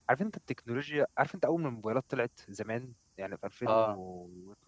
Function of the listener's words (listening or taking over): listening